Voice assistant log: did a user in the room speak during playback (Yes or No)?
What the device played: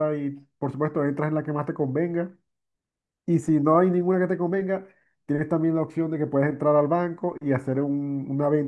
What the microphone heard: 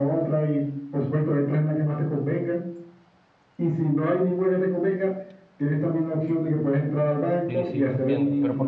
Yes